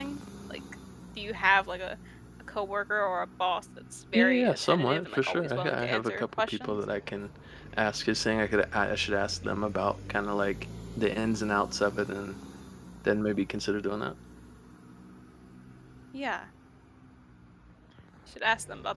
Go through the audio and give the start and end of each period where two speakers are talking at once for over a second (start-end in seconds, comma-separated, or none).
4.1-6.8